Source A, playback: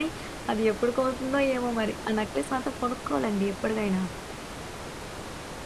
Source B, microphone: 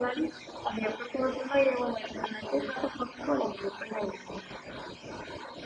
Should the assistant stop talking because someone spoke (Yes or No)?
No